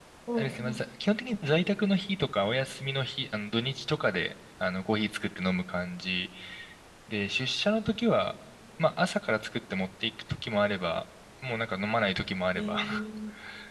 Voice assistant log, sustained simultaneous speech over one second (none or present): none